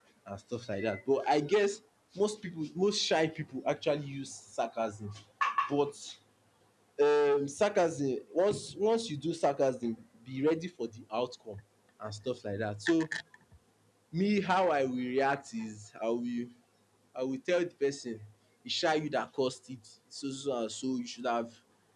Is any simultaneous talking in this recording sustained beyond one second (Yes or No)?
No